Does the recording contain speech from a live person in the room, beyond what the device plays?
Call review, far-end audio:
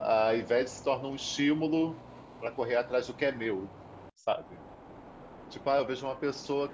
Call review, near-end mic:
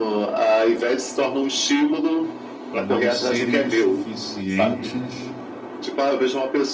Yes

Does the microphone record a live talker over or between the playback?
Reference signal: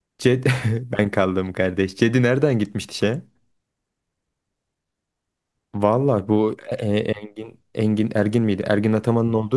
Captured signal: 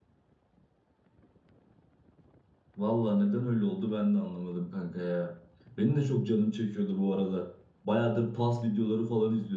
Yes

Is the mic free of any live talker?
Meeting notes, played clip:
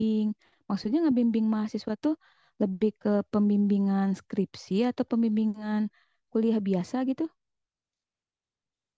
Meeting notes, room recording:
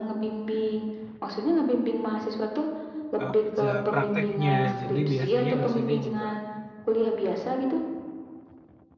No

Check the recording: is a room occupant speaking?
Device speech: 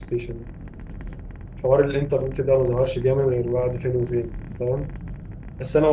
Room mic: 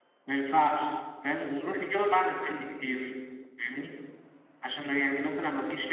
Yes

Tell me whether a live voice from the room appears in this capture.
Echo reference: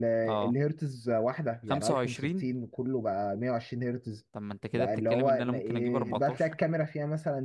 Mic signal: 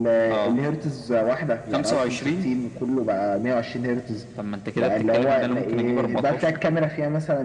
No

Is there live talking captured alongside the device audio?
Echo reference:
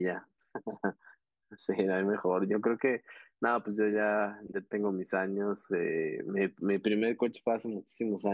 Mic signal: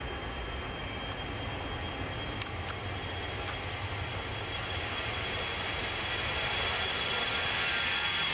No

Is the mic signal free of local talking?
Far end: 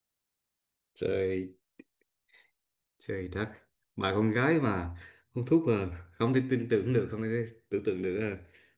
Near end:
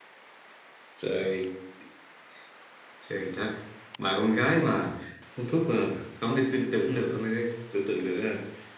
Yes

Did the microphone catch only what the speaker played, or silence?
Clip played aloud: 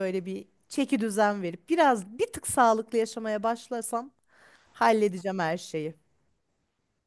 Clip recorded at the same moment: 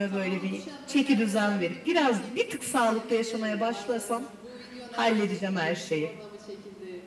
No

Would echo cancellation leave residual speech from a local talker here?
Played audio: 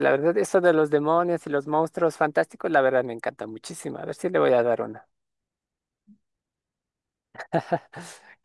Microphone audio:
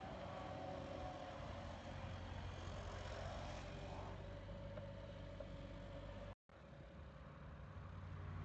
No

